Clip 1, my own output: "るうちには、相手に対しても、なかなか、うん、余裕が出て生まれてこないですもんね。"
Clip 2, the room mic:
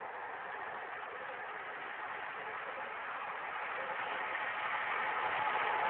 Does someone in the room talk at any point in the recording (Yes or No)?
No